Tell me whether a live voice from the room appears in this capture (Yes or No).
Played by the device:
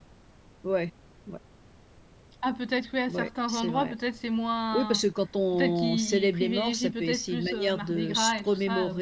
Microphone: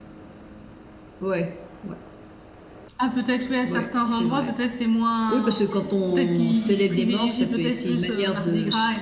Yes